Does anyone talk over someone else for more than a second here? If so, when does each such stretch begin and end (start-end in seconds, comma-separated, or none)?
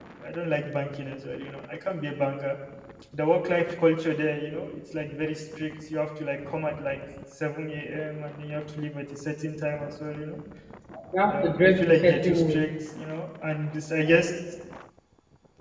11.3-12.6